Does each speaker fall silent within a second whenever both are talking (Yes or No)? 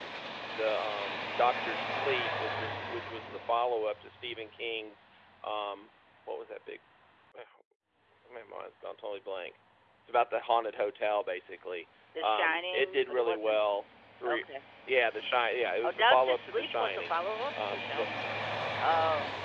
No